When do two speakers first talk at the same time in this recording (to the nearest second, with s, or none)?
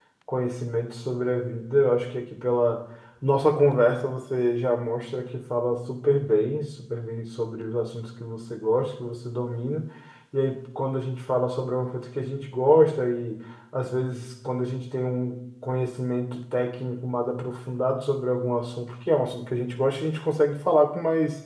none